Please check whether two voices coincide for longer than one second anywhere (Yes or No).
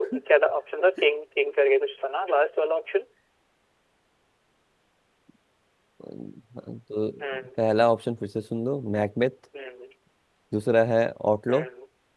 No